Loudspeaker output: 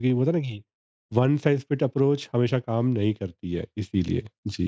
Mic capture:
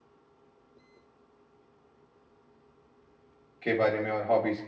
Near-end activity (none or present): present